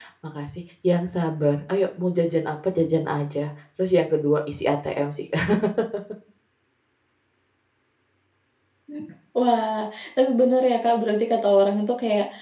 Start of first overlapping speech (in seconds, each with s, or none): none